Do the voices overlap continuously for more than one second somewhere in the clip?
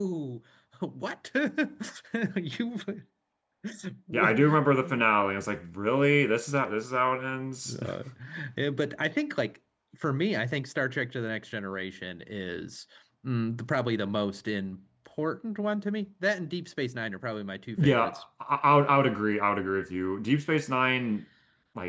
No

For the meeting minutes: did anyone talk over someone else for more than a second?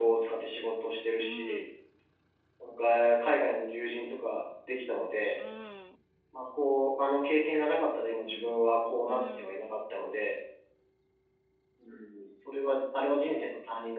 No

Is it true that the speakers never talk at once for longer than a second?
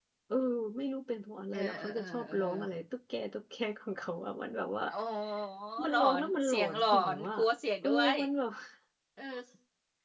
No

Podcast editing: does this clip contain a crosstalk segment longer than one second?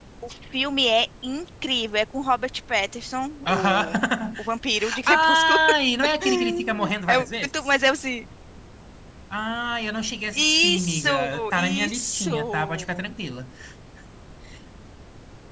Yes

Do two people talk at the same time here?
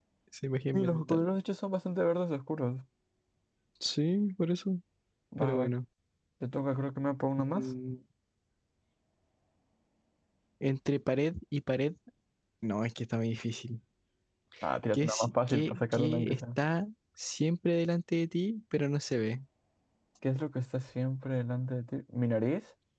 Yes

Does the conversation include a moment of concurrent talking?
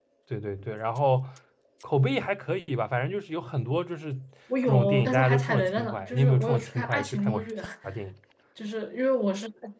Yes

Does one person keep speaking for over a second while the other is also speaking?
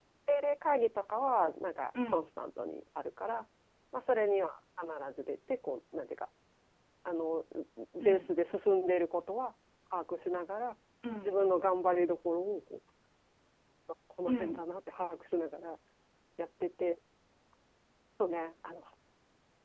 No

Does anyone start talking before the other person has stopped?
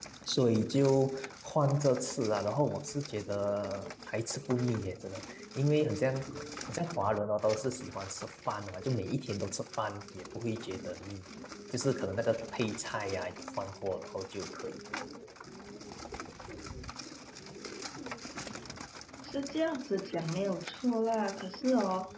No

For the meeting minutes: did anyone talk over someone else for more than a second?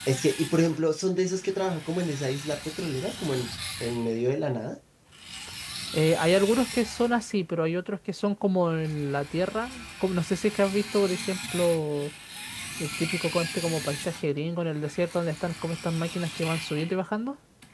No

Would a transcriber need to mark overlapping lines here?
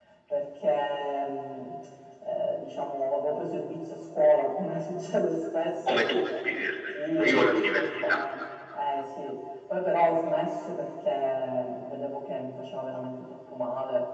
Yes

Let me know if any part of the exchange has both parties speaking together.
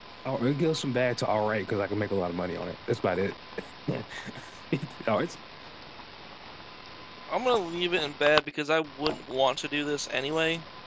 No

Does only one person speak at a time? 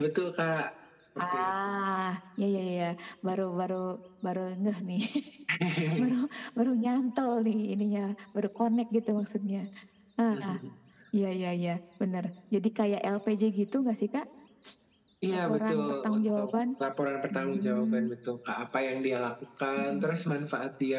No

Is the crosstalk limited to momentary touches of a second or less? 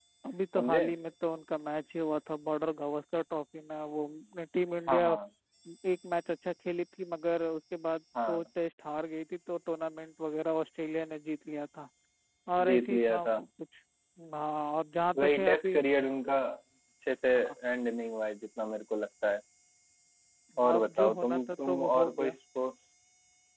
No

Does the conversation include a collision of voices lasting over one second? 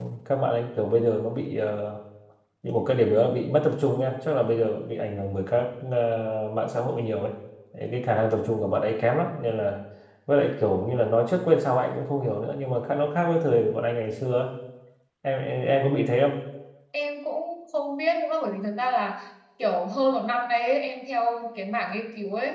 No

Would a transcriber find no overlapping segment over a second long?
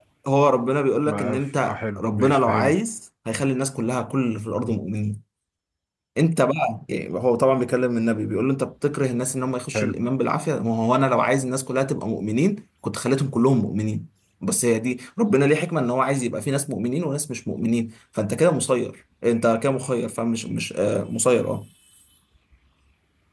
No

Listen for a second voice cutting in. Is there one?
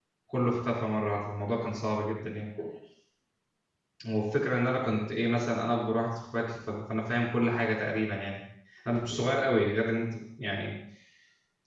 No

